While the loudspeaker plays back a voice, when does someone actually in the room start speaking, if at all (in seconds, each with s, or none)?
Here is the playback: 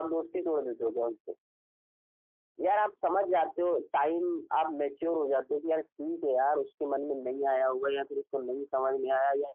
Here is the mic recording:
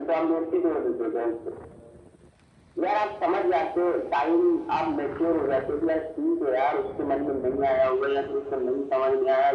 none